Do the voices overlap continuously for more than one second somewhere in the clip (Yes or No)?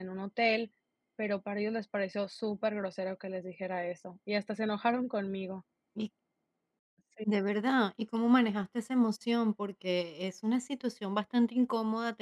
No